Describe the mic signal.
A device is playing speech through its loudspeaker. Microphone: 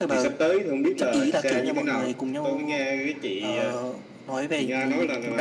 echo only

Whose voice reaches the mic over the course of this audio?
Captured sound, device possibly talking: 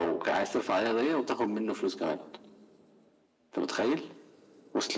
echo only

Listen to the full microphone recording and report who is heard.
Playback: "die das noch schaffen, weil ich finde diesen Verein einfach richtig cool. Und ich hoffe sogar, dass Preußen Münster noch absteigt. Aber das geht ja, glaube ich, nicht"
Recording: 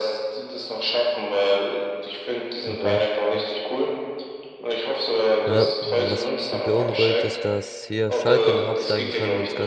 both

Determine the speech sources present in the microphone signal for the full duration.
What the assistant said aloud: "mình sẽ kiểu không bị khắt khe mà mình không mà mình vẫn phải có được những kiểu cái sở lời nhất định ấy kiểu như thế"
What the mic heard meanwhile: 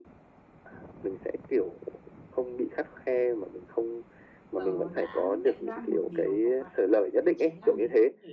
both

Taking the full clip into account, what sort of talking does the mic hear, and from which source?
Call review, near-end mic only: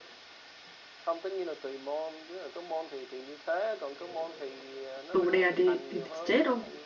both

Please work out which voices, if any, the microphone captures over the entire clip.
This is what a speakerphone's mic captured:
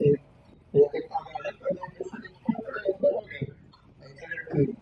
echo only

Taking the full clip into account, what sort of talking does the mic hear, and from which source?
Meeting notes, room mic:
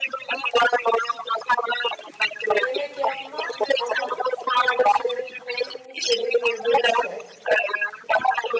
both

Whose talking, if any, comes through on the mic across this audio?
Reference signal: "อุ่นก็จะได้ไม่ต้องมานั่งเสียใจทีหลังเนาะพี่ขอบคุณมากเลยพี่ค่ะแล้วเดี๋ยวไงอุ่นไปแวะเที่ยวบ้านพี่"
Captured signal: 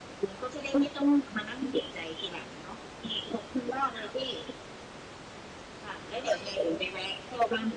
echo only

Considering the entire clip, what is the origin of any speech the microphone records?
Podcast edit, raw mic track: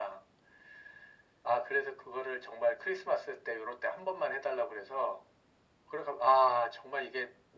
echo only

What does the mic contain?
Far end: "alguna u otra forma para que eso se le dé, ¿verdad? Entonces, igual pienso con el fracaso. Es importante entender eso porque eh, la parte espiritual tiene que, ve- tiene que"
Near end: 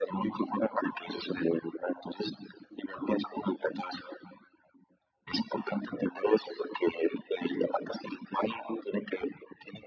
echo only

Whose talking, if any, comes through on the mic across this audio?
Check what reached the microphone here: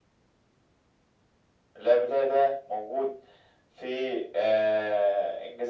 echo only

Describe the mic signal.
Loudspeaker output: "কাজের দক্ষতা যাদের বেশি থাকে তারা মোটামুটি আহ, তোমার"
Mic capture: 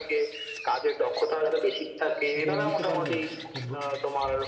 both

